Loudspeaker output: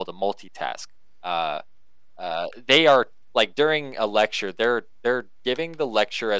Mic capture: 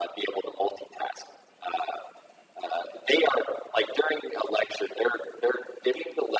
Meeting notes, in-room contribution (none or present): none